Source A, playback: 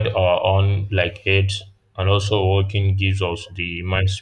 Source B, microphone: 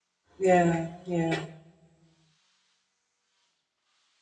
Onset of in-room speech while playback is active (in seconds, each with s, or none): 0.4 s